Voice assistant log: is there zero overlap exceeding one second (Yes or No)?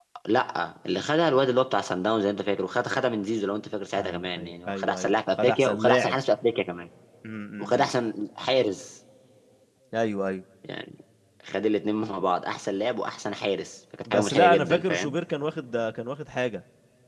No